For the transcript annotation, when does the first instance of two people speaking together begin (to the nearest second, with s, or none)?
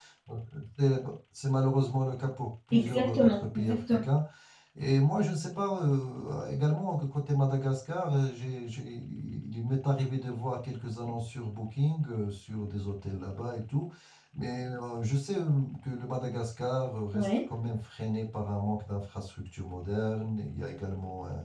3 s